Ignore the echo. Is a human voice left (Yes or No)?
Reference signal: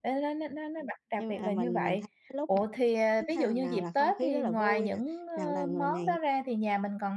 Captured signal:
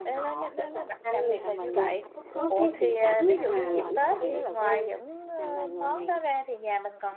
Yes